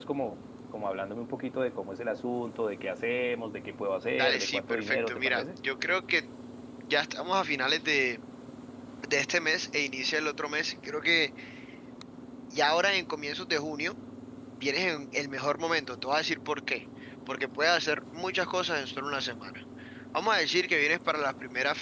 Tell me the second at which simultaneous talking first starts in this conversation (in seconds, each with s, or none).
4.2 s